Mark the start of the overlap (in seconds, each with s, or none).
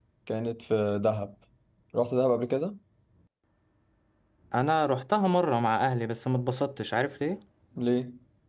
none